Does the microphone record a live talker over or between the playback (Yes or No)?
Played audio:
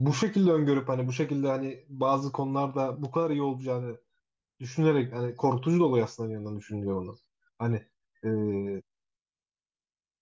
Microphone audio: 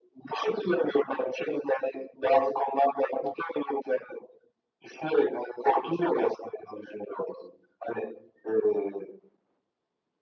No